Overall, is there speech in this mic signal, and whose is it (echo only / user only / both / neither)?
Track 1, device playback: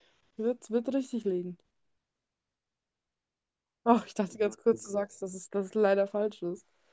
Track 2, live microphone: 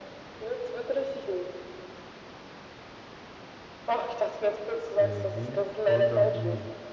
both